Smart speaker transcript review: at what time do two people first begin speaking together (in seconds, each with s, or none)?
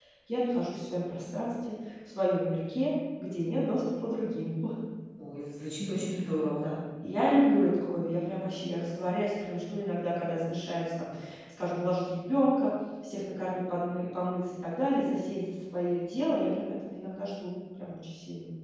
none